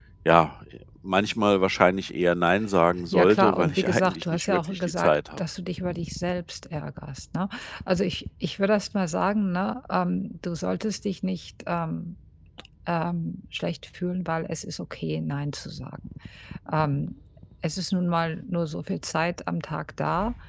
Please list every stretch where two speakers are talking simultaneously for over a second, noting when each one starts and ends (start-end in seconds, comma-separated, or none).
3.1-5.4